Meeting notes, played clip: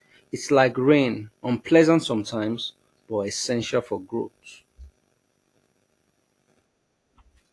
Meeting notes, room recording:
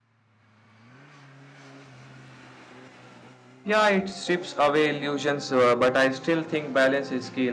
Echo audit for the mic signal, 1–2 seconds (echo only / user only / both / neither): neither